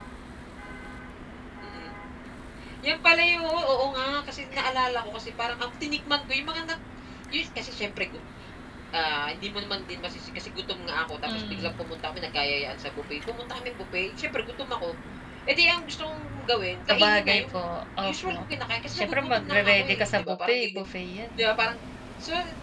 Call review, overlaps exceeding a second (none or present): present